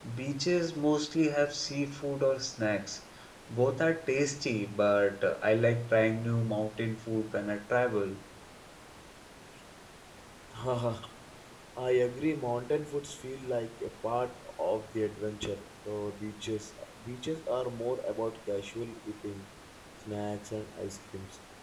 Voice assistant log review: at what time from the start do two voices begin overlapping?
none

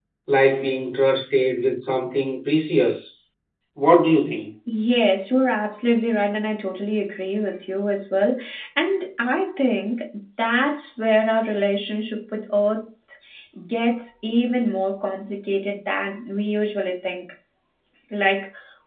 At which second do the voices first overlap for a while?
none

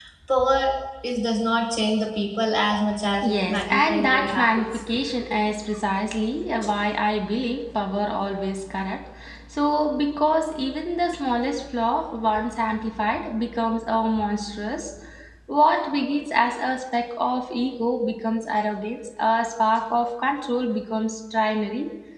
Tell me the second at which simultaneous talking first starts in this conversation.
3.2 s

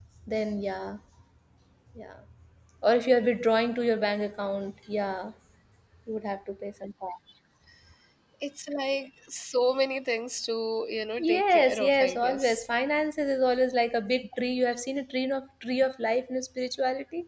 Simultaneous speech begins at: 11.2 s

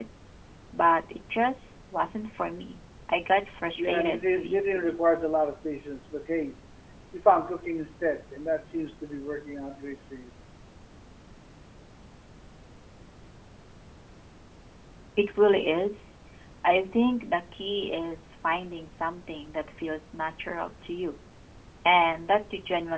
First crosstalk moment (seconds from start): 3.8 s

